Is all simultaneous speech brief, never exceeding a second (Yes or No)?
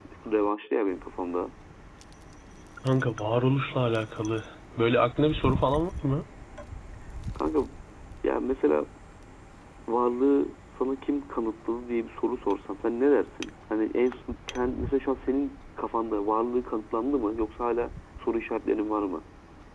Yes